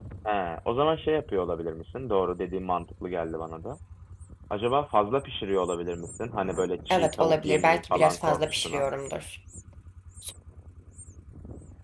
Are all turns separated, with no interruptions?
No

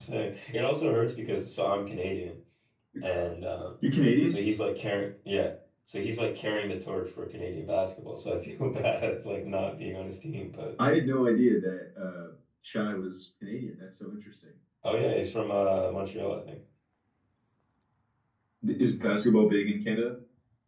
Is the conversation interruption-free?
Yes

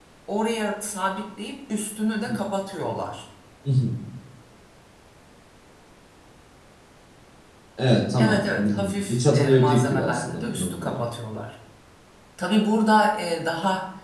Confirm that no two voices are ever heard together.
No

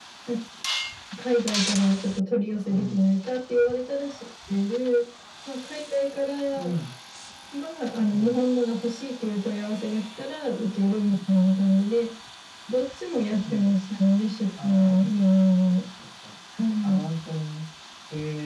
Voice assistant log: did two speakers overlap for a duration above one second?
No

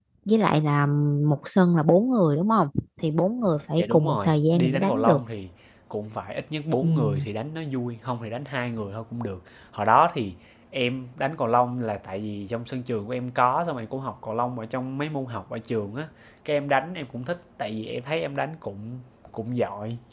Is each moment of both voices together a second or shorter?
No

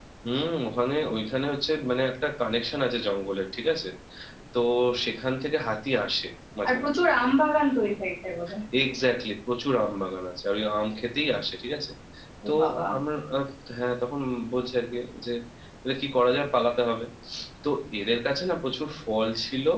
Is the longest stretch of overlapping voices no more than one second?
Yes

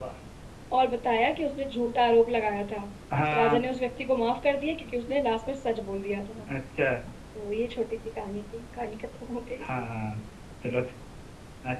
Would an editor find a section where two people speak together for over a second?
No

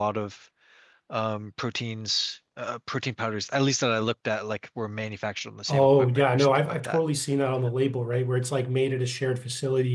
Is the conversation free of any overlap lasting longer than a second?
No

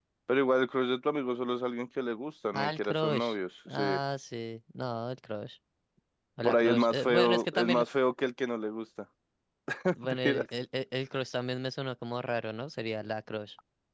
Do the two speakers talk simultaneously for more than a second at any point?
Yes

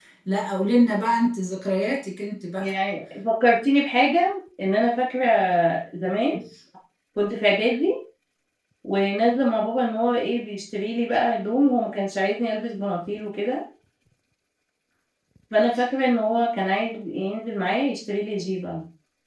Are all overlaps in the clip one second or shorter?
Yes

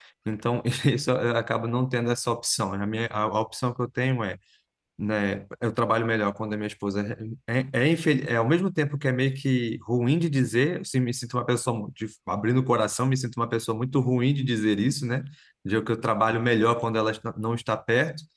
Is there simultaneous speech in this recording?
No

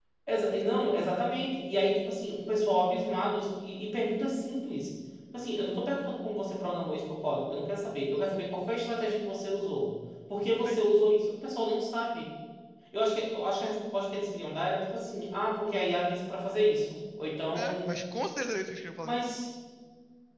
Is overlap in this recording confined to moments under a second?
Yes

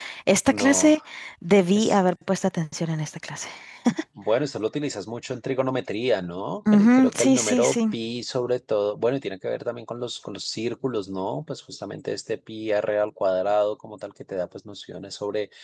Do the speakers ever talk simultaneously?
Yes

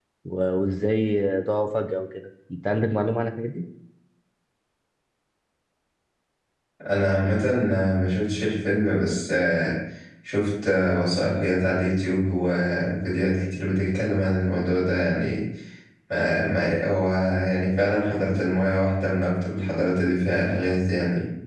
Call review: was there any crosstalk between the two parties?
No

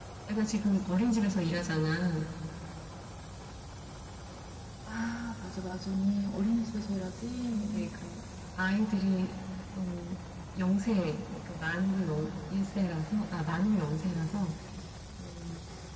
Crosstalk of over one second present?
No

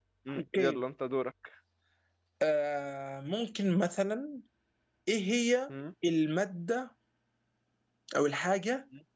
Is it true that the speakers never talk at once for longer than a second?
Yes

